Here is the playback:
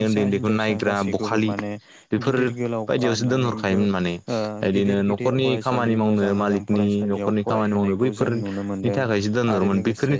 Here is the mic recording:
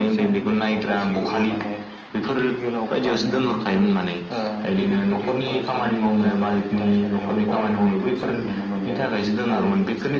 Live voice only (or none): none